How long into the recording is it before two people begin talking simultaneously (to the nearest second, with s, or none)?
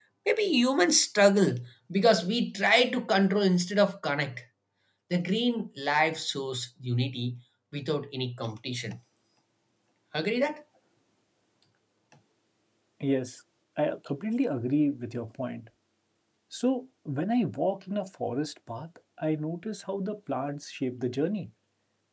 none